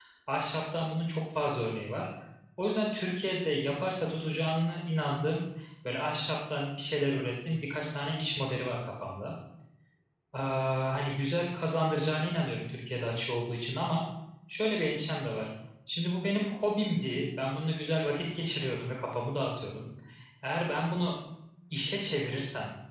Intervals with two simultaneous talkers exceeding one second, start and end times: none

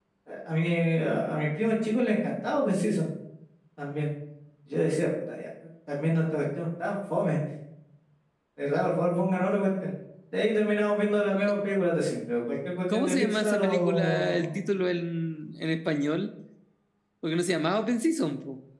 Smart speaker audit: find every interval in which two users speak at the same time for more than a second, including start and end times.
12.9-14.6

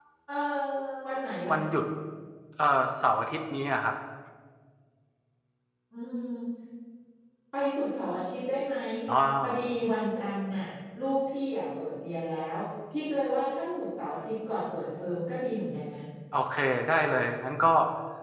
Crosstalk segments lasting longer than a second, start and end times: none

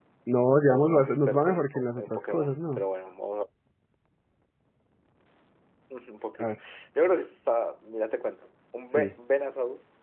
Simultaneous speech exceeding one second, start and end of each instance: 0.7-2.8

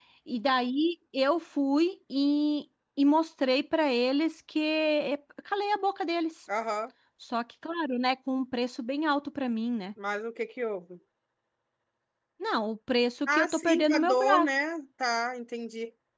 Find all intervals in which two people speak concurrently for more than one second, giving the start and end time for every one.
13.3-14.5

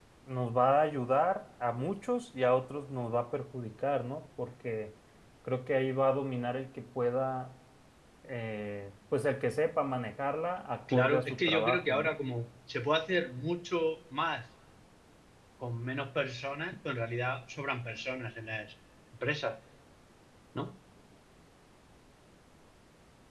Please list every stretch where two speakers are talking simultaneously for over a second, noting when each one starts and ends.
10.9-12.2

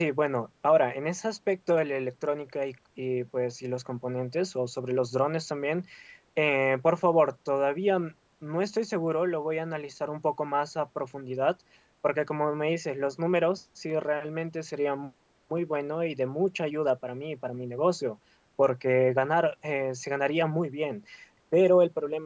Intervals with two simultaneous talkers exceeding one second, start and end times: none

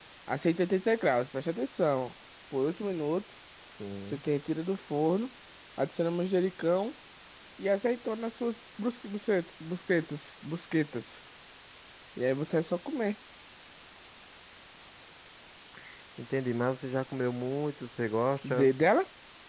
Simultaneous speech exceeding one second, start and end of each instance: none

